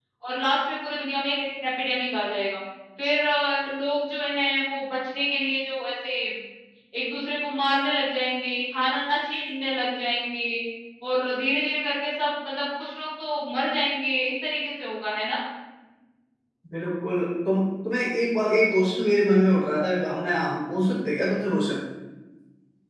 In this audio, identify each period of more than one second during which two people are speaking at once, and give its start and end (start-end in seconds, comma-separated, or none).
none